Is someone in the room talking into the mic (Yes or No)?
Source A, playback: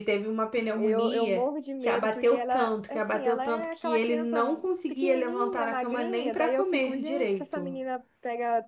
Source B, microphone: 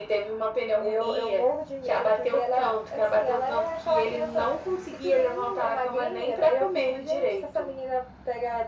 No